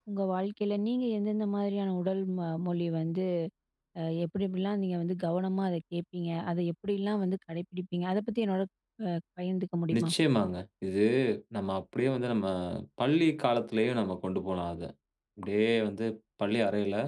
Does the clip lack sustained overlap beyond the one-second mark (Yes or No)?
Yes